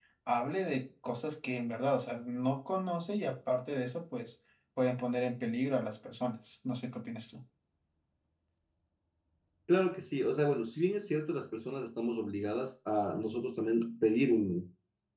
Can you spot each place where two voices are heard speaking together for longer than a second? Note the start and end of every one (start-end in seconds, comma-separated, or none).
none